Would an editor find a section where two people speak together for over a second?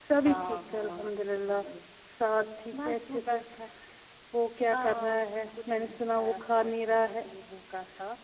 Yes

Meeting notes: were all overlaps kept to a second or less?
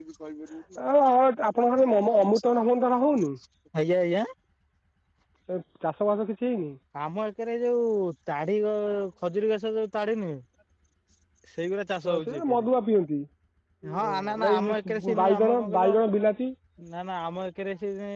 No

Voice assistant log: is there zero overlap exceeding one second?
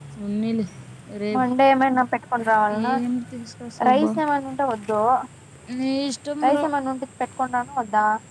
Yes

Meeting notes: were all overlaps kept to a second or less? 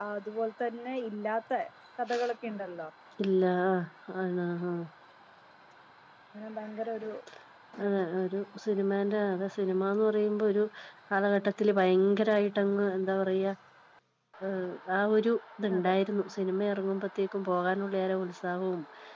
Yes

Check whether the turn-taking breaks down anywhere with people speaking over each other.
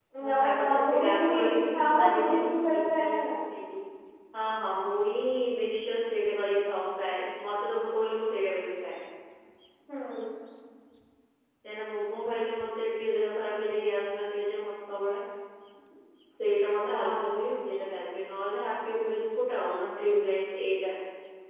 Yes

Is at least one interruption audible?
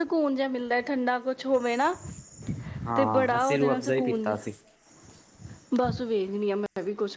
Yes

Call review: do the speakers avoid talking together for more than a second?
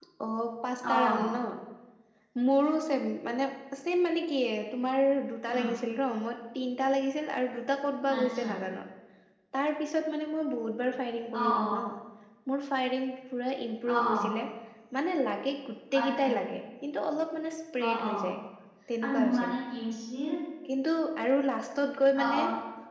Yes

